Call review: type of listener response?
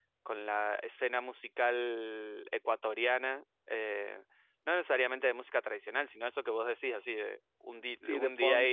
taking over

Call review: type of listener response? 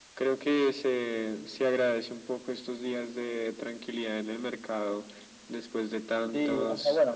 taking over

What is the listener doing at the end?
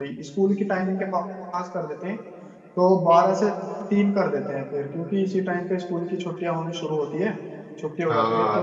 taking over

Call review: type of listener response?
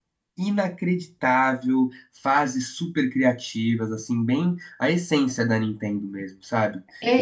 taking over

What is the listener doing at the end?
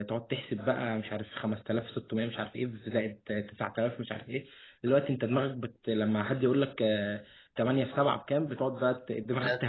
taking over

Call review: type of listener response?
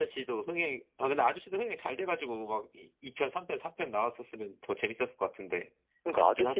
taking over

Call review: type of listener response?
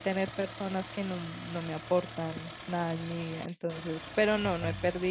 listening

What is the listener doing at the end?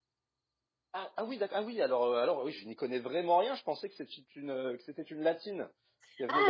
taking over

